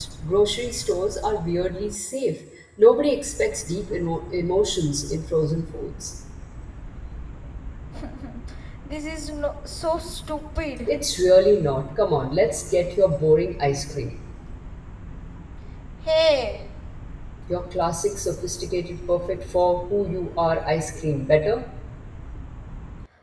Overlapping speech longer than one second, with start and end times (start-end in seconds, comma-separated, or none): none